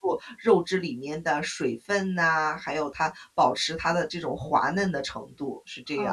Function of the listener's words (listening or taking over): taking over